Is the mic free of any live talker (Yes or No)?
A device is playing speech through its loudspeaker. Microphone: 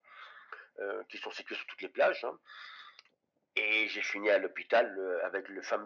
Yes